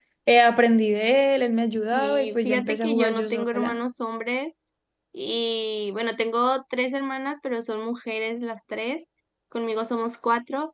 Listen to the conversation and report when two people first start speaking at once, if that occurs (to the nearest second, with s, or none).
2 s